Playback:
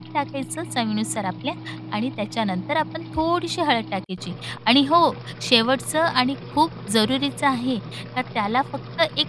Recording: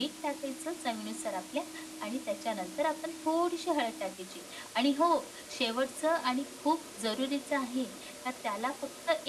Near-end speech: none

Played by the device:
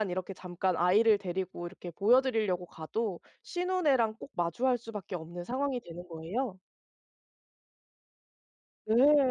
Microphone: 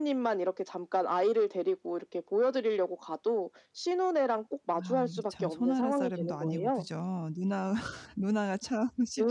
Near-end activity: present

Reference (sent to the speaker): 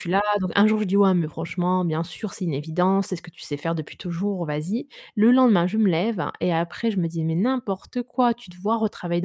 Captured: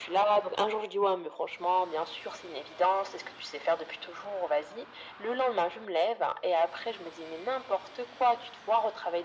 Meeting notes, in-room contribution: none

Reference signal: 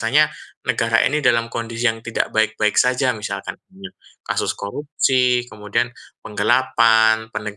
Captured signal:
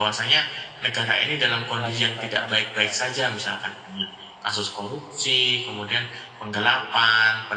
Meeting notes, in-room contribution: present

